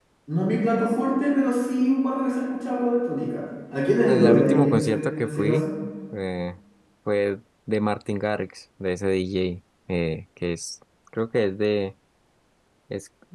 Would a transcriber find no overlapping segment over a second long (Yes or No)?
No